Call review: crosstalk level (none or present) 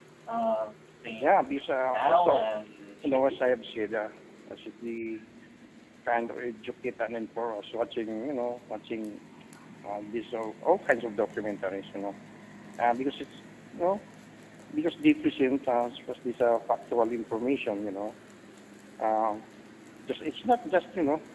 present